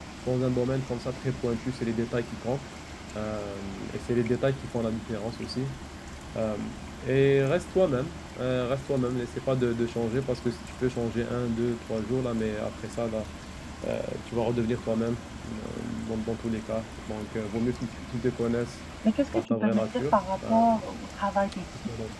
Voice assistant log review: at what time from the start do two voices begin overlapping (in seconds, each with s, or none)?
19.3 s